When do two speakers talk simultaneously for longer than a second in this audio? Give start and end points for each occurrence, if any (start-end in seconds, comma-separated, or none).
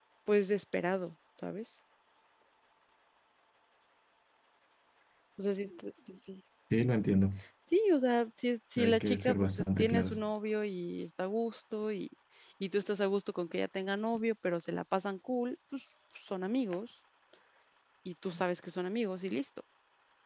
8.8-10.2